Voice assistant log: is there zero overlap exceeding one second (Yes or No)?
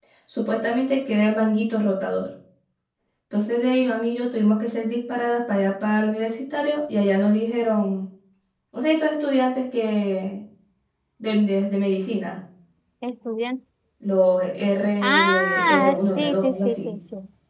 No